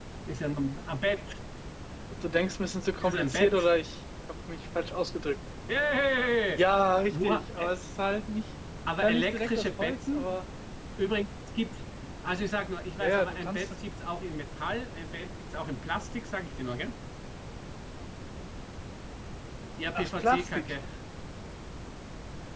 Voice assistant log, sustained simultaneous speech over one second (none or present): present